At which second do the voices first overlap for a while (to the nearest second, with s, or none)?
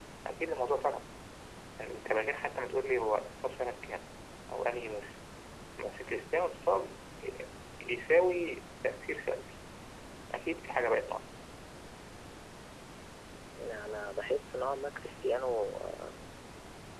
none